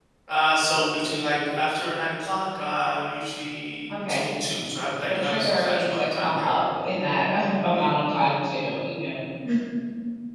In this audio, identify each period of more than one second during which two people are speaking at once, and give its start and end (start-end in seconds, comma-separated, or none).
5.0-6.5